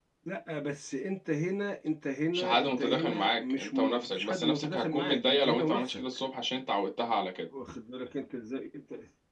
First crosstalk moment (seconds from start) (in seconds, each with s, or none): 2.3 s